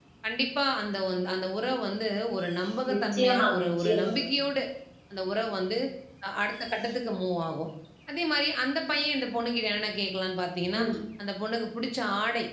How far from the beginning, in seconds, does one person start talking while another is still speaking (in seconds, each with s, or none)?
2.9 s